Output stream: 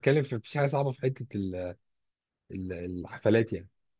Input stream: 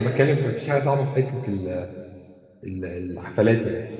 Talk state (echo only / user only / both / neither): echo only